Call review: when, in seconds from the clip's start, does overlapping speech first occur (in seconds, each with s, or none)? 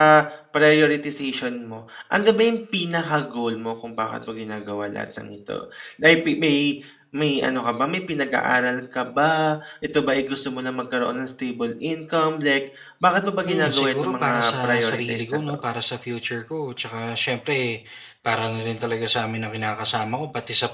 13.5 s